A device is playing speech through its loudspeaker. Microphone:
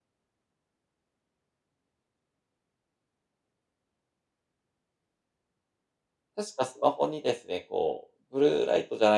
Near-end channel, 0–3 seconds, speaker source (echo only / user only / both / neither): neither